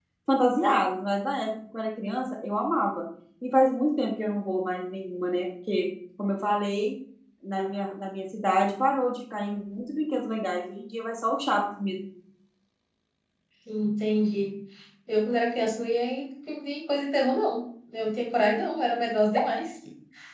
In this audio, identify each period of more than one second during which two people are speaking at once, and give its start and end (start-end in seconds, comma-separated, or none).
none